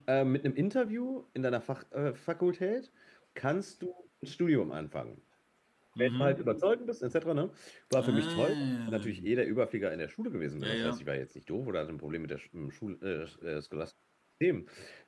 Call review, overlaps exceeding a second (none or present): present